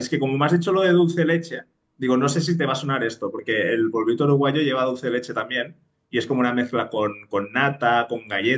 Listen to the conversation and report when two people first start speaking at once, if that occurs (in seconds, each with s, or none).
none